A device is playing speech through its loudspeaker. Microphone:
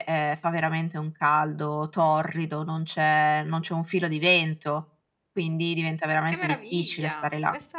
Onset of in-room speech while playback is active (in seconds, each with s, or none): 6.2 s